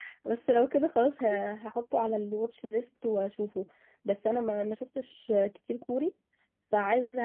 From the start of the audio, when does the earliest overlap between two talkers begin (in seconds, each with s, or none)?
none